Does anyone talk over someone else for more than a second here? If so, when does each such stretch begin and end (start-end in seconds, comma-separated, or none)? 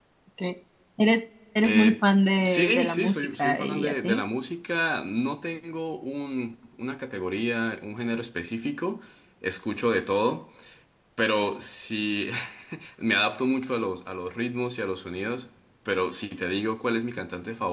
2.4-4.2